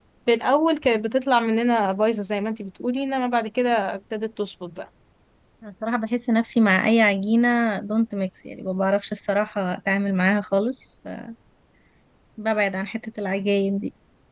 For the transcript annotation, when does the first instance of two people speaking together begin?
none

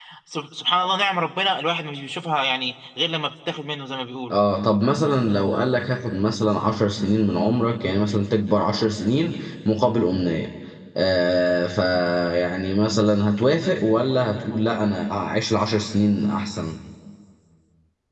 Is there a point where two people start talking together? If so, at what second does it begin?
none

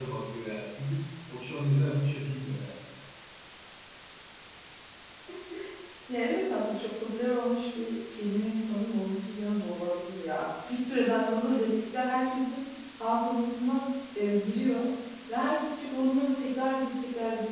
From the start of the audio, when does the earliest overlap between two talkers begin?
none

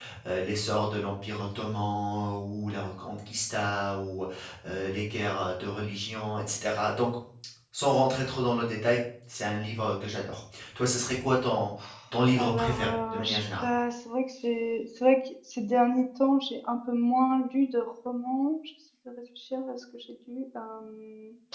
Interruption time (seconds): 12.4 s

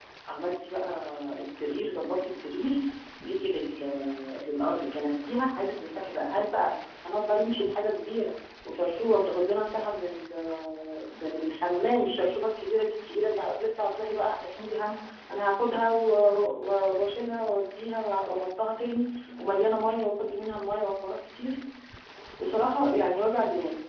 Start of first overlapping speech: none

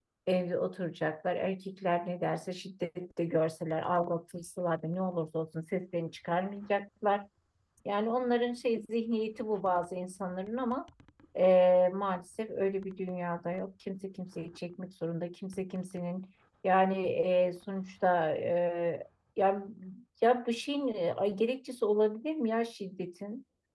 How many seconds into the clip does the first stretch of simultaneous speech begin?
none

